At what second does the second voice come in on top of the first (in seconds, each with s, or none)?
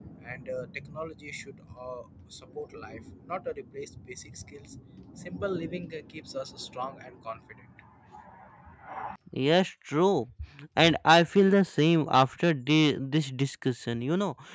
none